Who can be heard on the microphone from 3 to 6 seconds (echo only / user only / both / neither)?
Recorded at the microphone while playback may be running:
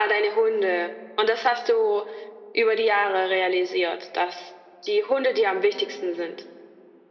echo only